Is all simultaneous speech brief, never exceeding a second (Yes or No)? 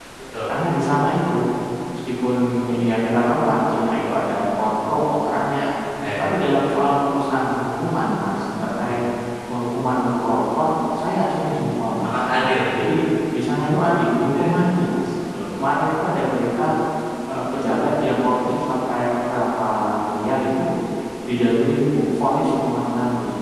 Yes